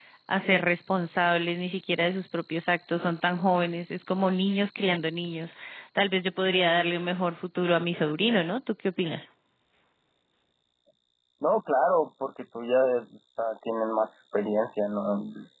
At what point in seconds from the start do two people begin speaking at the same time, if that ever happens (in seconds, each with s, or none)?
none